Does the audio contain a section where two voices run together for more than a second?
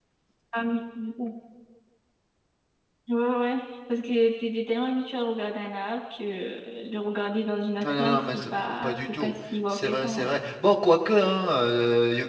Yes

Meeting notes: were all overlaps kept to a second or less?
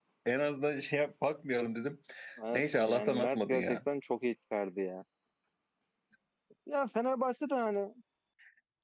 No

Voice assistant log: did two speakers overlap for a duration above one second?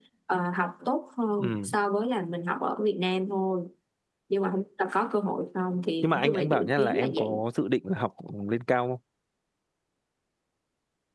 Yes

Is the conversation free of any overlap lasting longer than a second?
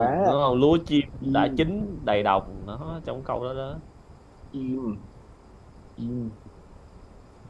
Yes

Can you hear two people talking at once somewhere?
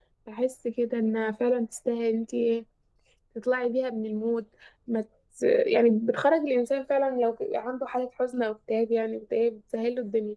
No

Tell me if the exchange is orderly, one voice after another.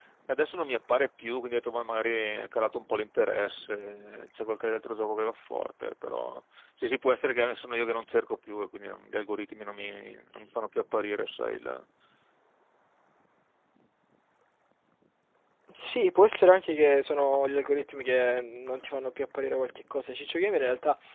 Yes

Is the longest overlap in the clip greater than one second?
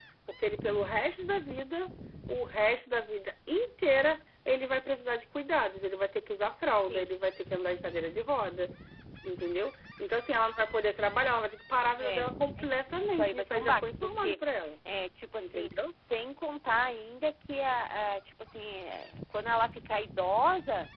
Yes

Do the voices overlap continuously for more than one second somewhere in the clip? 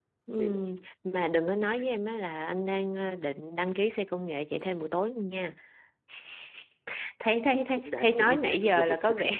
Yes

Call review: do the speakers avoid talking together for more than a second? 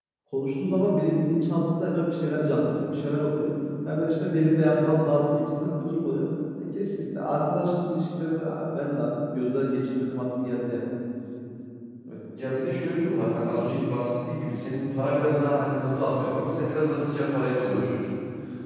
Yes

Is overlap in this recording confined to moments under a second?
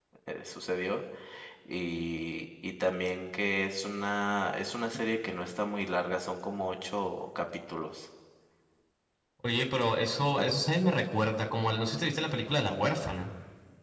Yes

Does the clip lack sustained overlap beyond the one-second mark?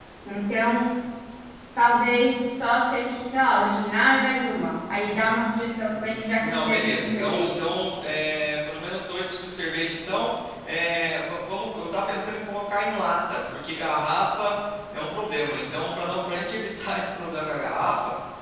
No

